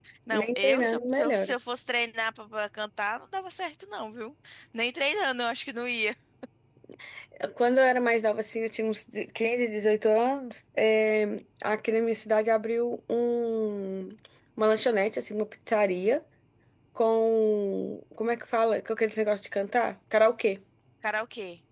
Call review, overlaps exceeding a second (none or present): present